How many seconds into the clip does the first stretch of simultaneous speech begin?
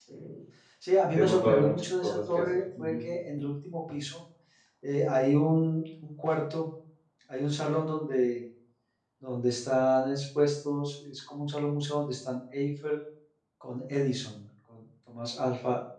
1.1 s

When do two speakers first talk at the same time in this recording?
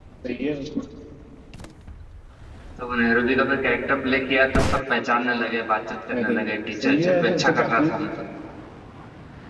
6.1 s

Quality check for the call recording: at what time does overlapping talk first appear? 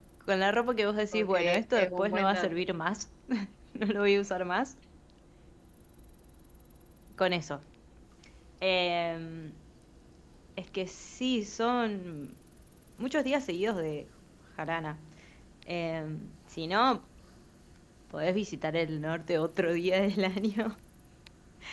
1.1 s

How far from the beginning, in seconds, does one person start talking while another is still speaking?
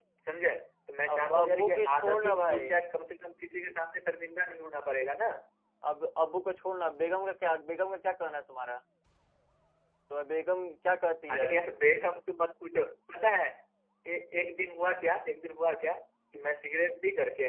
1.1 s

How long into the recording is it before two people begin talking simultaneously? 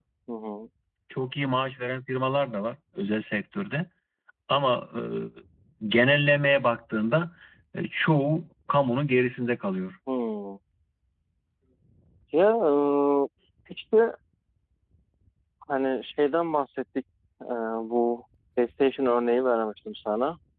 none

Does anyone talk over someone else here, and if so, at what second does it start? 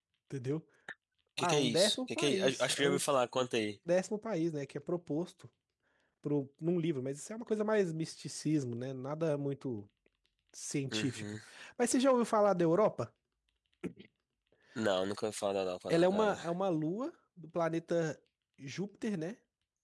1.4 s

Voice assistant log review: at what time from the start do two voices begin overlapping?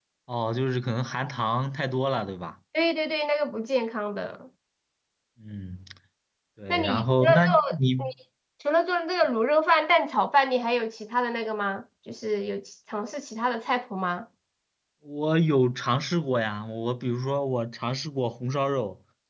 6.7 s

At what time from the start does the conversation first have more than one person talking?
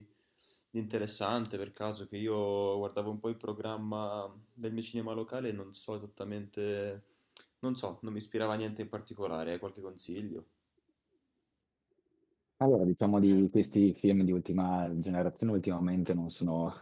none

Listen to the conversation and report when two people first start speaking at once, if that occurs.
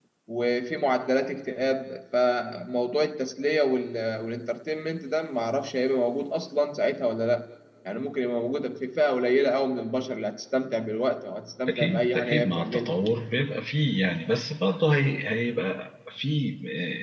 11.7 s

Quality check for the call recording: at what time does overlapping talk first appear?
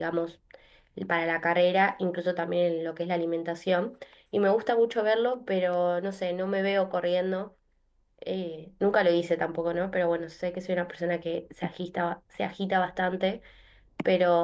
none

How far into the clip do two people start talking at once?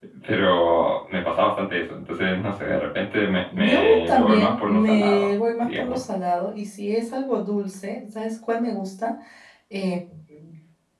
3.6 s

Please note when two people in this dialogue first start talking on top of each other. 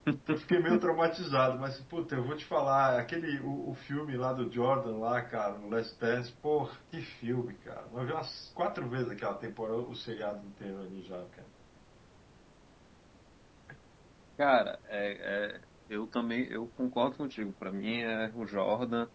none

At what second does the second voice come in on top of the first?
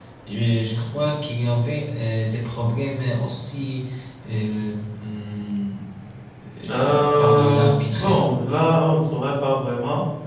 6.7 s

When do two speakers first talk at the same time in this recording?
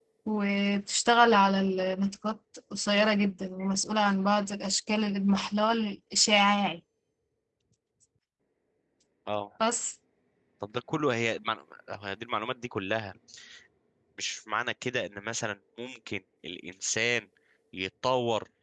none

